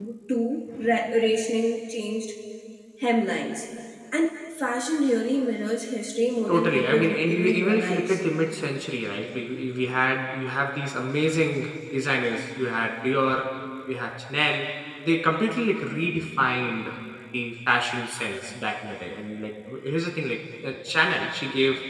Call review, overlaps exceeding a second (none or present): present